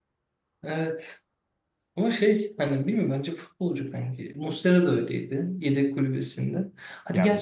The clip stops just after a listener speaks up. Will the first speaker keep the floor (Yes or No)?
Yes